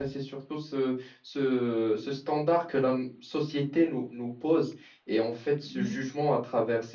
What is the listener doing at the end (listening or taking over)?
listening